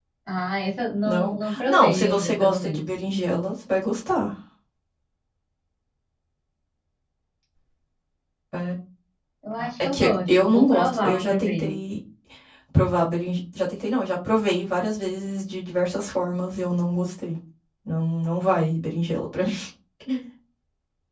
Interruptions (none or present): present